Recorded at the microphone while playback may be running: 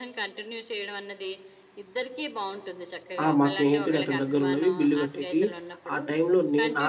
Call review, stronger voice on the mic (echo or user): user